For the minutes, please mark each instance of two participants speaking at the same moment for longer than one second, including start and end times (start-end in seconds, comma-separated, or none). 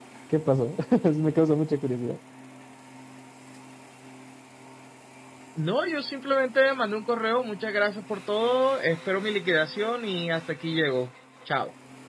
none